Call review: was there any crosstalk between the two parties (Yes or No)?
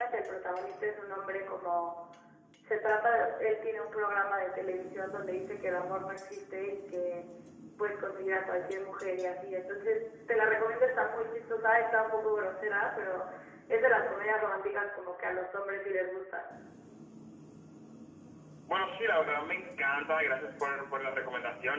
No